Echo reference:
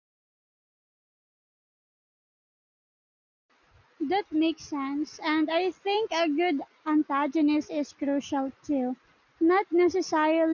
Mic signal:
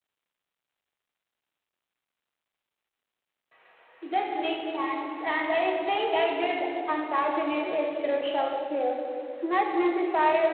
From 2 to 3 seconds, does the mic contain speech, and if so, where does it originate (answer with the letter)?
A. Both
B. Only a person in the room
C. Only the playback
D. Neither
D